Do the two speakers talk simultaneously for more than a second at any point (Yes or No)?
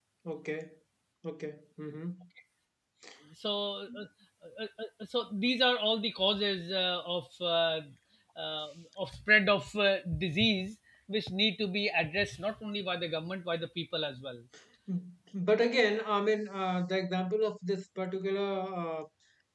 No